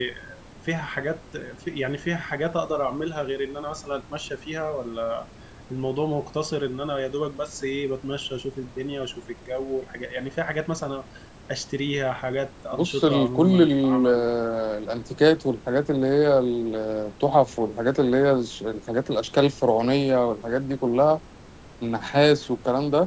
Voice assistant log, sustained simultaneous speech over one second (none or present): present